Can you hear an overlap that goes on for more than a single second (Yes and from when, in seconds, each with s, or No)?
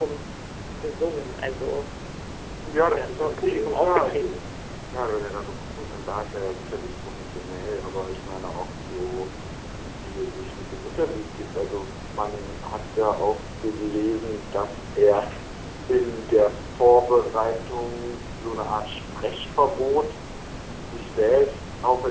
Yes, from 2.9 s